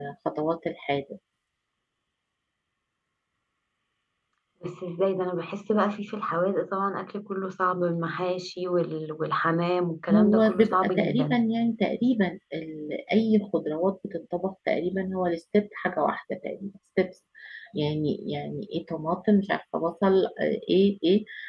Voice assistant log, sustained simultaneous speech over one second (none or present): present